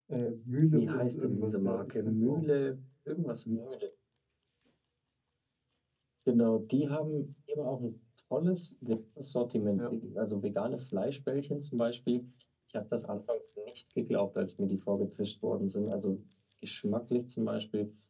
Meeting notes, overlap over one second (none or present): present